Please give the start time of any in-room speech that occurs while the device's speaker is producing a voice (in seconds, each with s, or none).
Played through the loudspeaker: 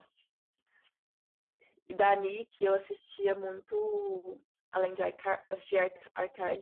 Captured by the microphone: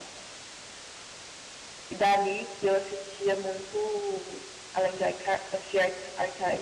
none